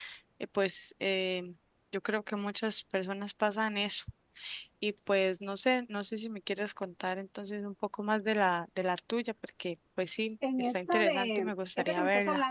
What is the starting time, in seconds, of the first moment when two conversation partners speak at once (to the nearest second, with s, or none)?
10 s